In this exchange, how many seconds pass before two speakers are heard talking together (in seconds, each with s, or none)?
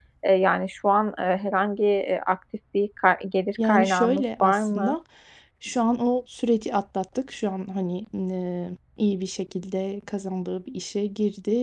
3.6 s